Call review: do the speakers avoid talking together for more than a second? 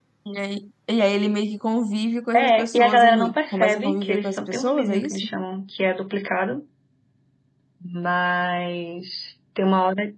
No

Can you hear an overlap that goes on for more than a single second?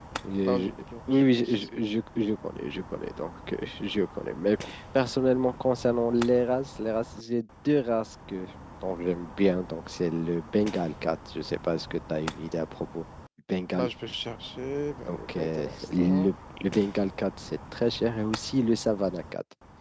Yes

